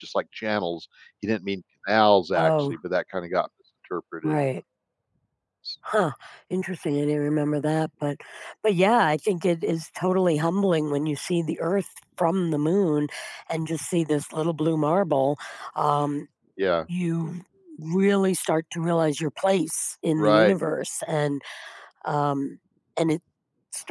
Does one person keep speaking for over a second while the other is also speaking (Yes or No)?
No